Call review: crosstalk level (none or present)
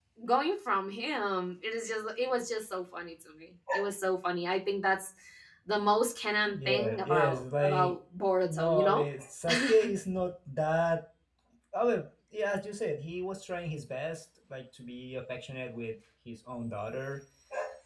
present